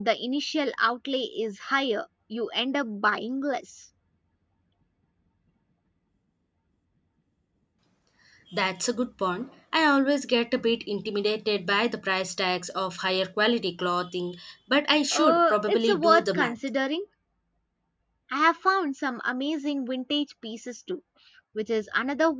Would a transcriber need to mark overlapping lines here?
Yes, from 15.1 s

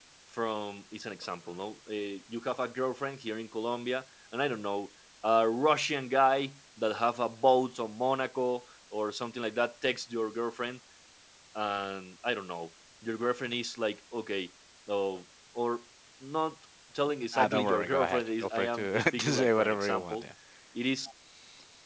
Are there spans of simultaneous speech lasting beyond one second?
Yes, from 17.3 s

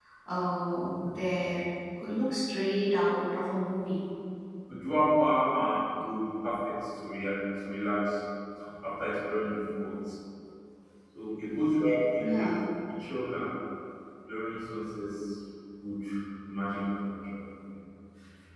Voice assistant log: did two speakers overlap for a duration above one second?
No

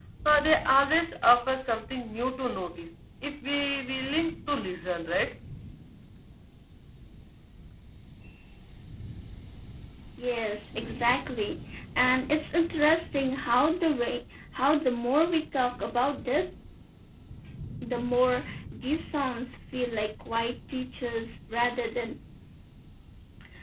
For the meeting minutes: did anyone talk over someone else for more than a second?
No

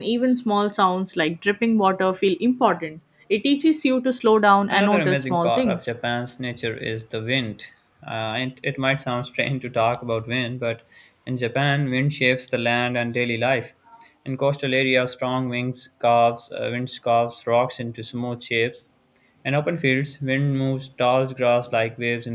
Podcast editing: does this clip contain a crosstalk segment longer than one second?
Yes, from 4.7 s

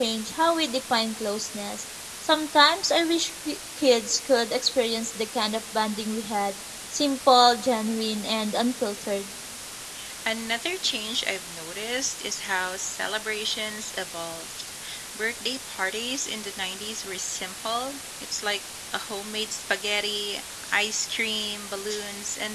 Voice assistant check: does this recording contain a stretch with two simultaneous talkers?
No

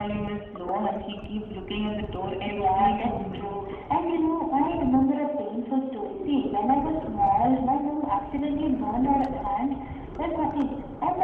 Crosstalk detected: Yes, from 2.4 s

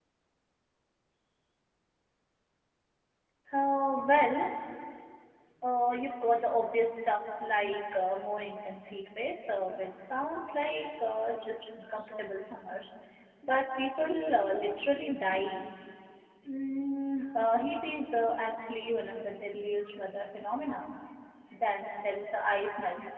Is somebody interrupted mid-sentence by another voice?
No

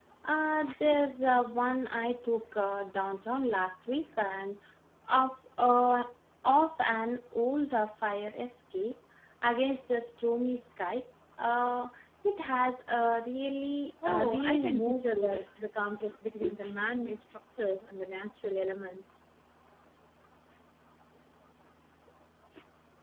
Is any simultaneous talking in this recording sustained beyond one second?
Yes, from 14.0 s

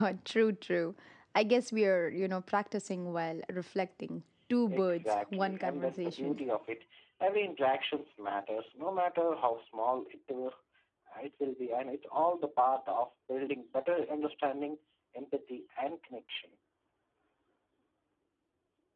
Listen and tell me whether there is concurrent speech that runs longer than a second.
Yes, from 4.7 s

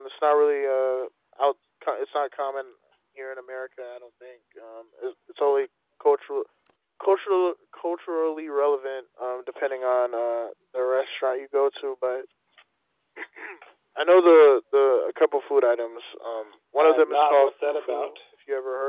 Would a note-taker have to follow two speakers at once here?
Yes, from 16.8 s

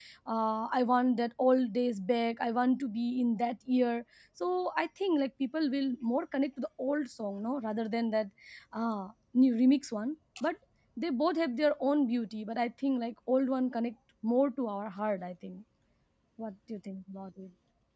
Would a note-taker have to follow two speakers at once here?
No

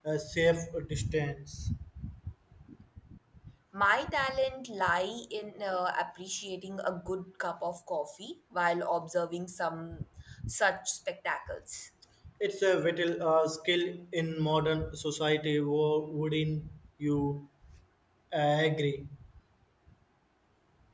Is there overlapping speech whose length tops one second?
No

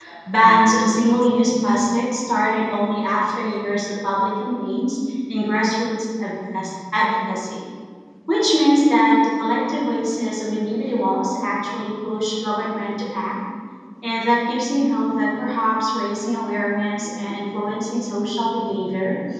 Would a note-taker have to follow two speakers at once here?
No

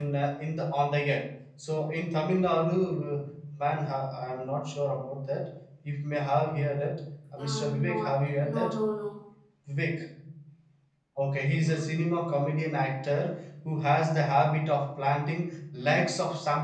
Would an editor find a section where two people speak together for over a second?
Yes, from 7.4 s

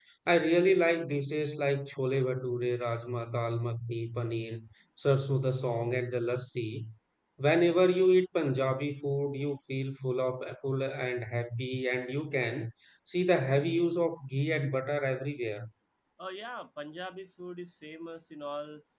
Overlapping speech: No

